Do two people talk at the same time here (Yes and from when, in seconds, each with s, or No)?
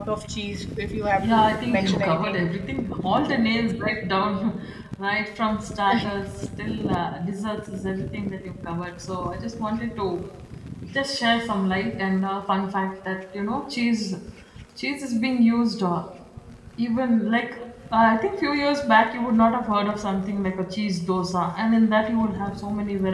Yes, from 1.2 s